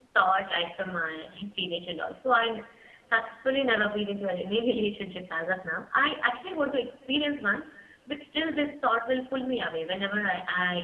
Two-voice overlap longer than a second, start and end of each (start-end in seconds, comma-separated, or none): none